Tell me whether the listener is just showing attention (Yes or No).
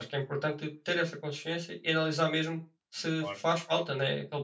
Yes